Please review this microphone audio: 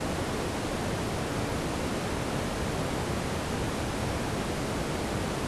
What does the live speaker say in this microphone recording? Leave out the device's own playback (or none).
none